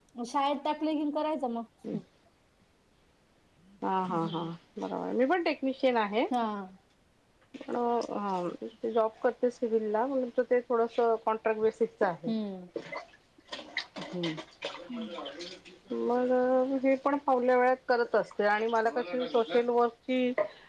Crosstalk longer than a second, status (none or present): none